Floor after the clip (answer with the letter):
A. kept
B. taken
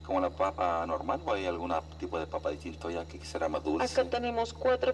B